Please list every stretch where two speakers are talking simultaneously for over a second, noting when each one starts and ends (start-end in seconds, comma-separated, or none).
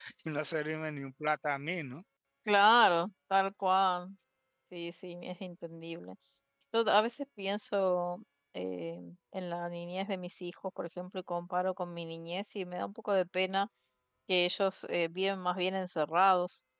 none